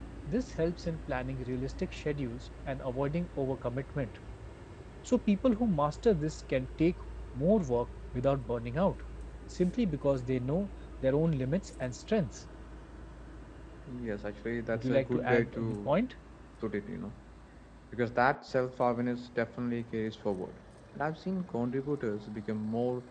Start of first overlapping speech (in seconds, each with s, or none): 14.7 s